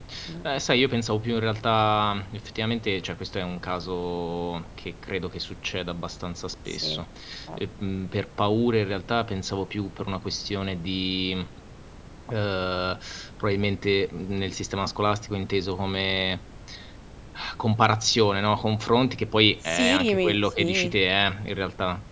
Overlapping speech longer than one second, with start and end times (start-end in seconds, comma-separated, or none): 19.6-20.9